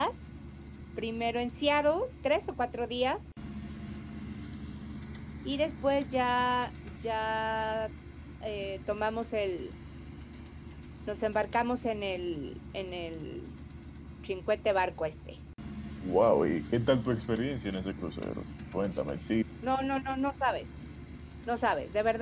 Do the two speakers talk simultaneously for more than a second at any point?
No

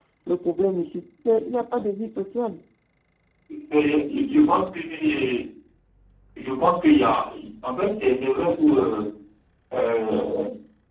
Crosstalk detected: No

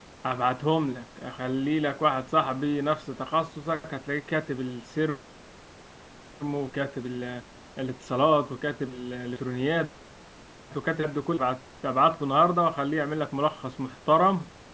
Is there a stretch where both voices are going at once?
No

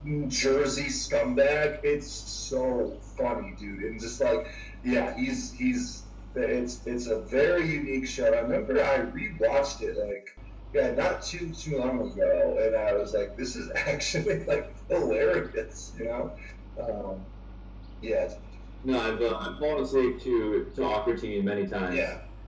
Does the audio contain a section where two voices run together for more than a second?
No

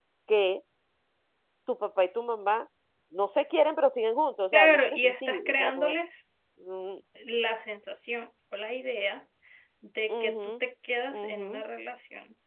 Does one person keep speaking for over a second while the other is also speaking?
Yes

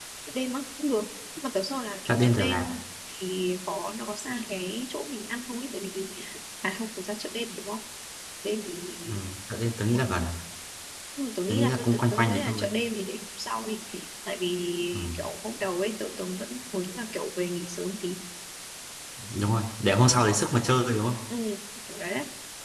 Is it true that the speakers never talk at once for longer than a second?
No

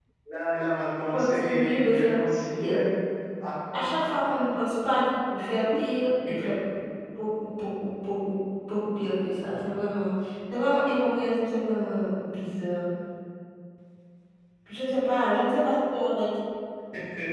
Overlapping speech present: Yes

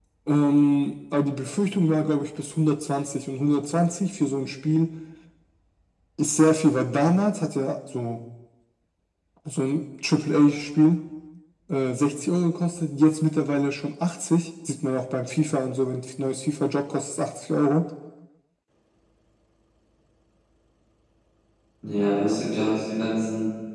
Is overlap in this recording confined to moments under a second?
Yes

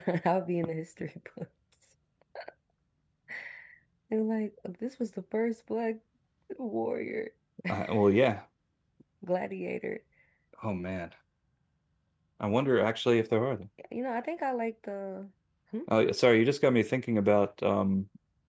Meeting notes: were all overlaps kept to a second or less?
Yes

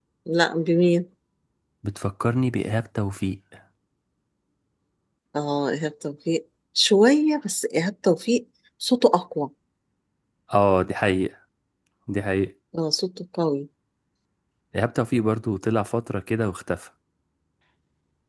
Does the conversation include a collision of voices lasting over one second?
No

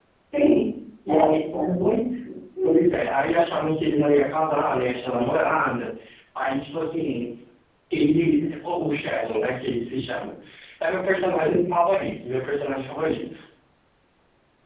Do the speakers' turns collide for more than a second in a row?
No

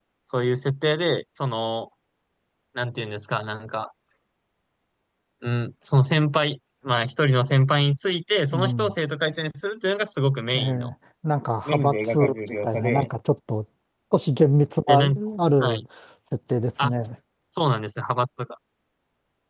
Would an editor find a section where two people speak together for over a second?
Yes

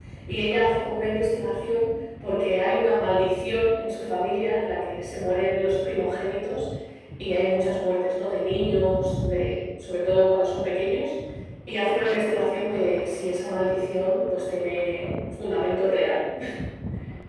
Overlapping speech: No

